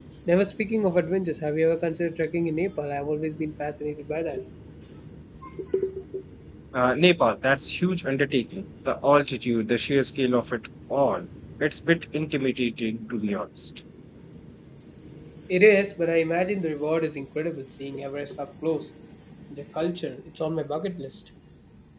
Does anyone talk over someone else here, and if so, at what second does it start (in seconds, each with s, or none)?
none